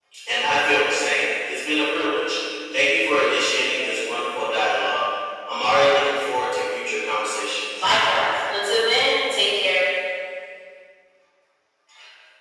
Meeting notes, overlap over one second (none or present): none